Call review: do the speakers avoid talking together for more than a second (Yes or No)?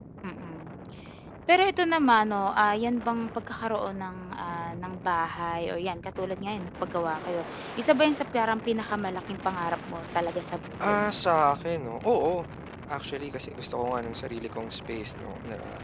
Yes